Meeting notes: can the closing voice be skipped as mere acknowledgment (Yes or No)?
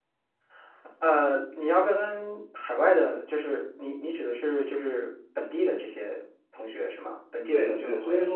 No